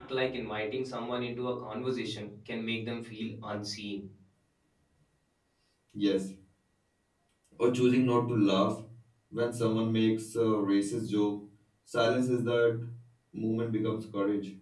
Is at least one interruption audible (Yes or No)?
No